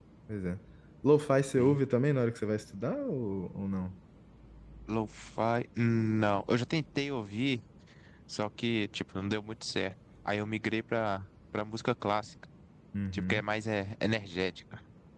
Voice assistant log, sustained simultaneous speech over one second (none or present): none